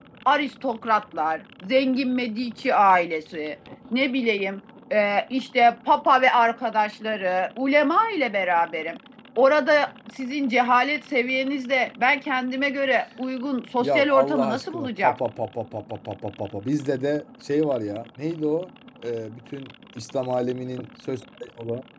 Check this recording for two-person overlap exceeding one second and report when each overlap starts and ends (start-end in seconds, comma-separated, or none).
13.8-15.2